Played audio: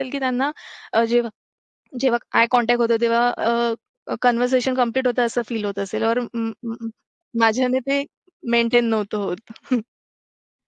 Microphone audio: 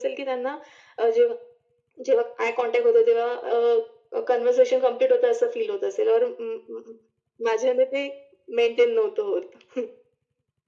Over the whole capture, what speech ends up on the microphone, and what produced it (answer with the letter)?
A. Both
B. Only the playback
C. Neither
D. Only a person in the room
B